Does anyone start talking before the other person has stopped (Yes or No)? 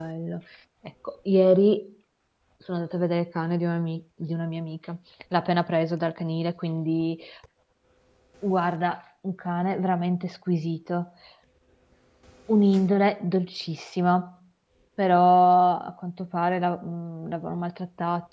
No